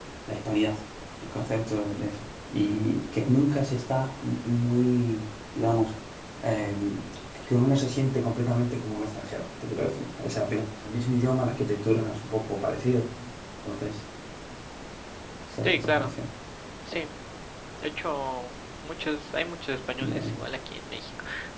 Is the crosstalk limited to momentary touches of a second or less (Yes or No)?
Yes